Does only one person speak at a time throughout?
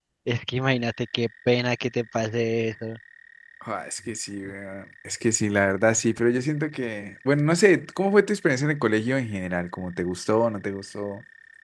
Yes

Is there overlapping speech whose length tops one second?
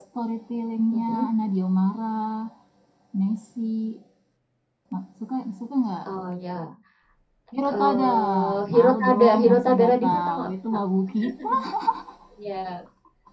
Yes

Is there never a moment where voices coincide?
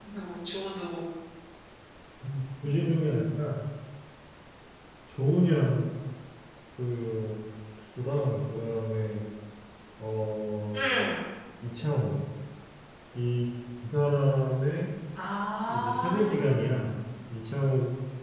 No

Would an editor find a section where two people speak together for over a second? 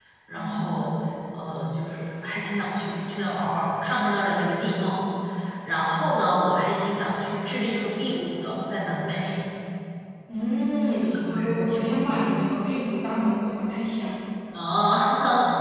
Yes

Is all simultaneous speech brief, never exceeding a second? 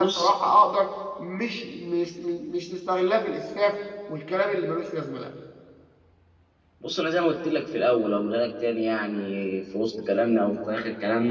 Yes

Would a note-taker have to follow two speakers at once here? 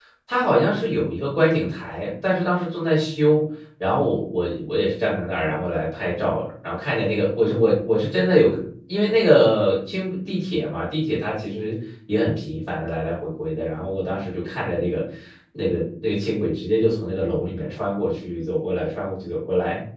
No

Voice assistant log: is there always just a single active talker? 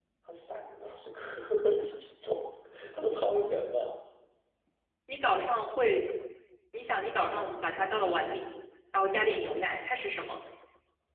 Yes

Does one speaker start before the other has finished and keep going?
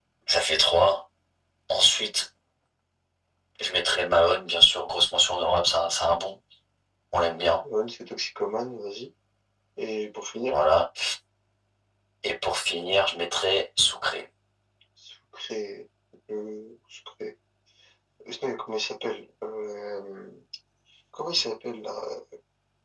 No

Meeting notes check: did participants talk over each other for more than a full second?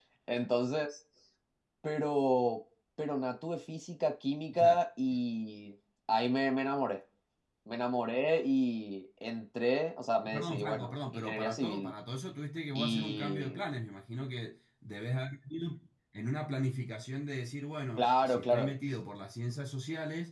Yes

